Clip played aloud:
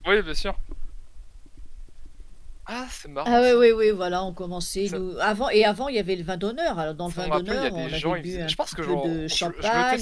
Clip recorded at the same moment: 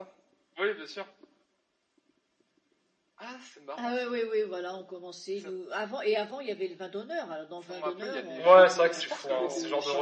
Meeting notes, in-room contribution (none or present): present